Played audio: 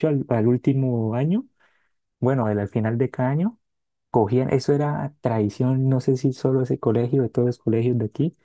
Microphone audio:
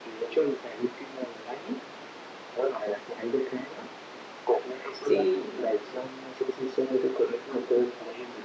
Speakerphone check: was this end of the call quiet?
No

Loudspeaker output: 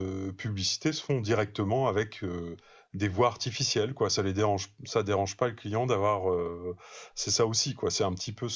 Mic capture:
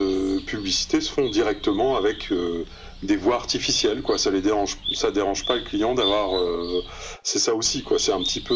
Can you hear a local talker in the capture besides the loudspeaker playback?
No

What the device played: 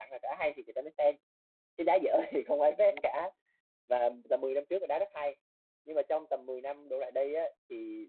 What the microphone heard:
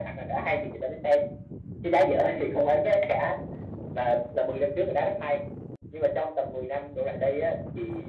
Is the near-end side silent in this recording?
Yes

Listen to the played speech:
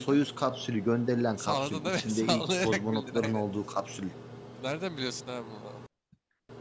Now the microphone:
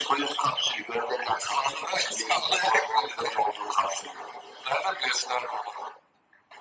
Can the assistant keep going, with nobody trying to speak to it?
Yes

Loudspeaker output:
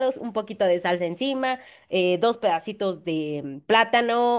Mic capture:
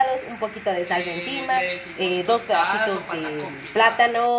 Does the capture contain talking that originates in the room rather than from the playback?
Yes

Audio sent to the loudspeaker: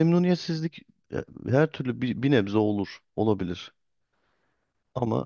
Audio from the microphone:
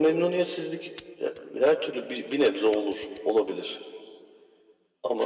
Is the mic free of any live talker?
Yes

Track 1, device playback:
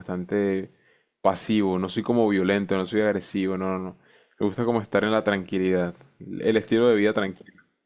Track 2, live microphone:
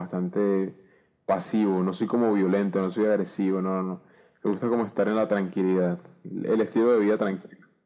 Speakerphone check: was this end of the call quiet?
Yes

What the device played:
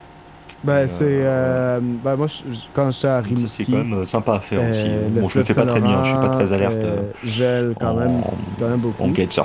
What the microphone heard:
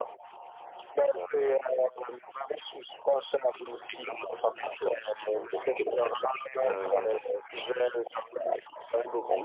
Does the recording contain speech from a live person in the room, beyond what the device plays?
Yes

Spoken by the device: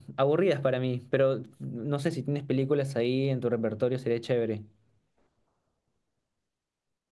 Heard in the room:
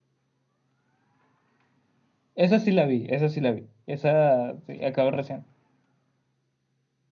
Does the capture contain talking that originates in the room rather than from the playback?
Yes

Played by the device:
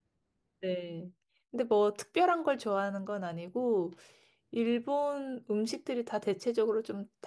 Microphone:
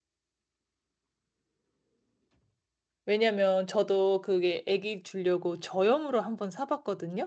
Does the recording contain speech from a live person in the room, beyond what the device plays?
Yes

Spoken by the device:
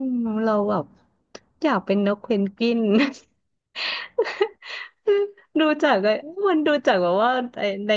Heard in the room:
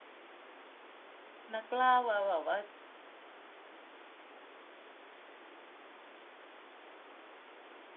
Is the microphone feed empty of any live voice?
No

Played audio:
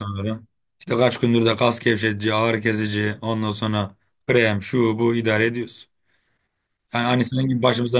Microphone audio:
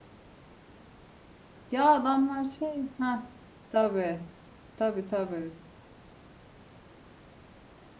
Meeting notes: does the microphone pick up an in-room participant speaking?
Yes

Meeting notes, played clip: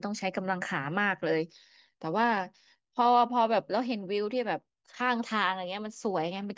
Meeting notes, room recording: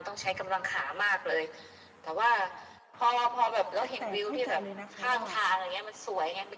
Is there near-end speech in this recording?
Yes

